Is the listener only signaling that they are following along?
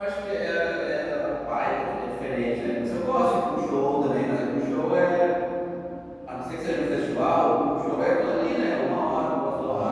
Yes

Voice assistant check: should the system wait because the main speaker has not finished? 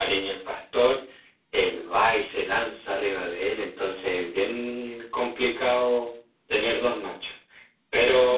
Yes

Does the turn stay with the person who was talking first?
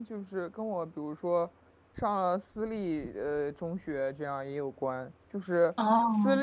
Yes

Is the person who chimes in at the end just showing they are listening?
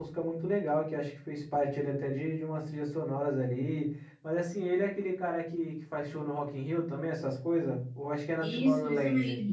No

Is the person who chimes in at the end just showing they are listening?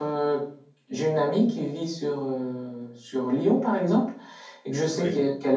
Yes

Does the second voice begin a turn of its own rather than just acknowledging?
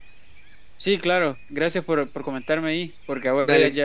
No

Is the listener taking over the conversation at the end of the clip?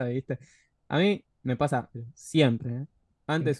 No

